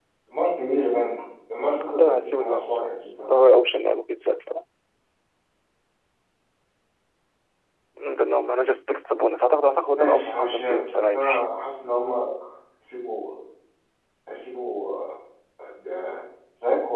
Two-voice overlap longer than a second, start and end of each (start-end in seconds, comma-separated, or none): 1.9-3.3, 10.0-11.4